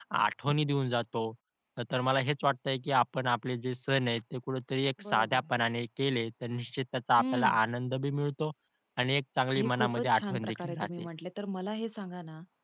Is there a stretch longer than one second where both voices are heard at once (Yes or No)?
Yes